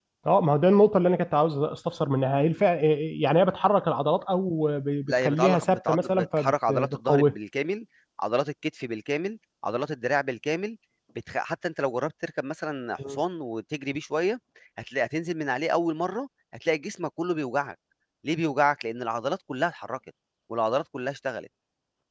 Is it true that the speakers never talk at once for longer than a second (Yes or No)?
No